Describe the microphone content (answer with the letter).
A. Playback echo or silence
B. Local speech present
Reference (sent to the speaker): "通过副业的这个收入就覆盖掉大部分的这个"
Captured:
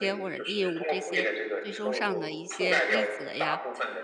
B